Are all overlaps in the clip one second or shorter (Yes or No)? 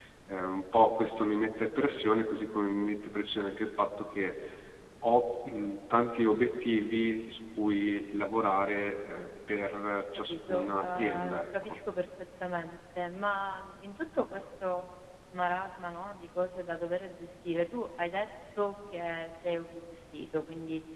No